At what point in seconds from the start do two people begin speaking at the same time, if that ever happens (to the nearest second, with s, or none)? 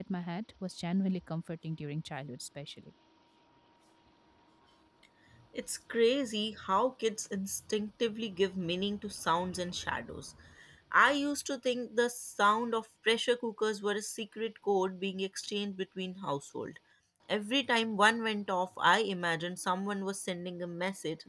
none